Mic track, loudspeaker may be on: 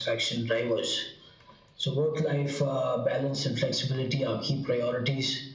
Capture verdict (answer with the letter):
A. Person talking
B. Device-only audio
B